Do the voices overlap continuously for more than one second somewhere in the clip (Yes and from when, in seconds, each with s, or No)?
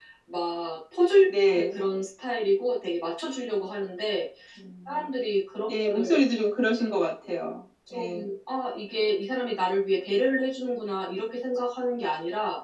No